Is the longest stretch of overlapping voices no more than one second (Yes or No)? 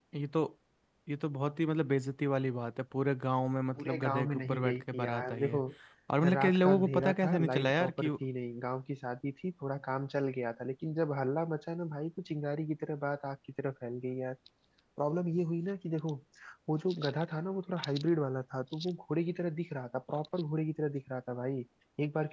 No